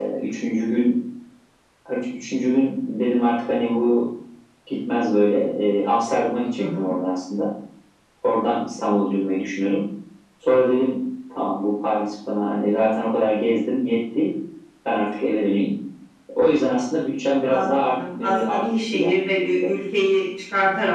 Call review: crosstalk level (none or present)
present